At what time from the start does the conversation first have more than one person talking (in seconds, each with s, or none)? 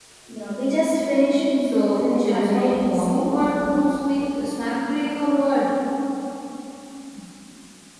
1.6 s